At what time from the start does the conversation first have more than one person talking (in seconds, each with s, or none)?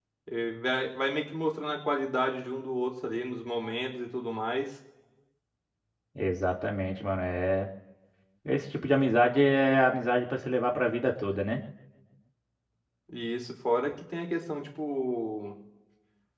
none